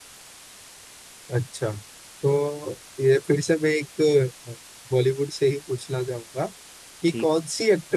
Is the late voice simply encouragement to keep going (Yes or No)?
Yes